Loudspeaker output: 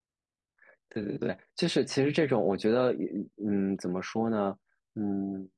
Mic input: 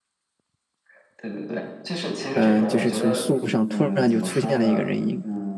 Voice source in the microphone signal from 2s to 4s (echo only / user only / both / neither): both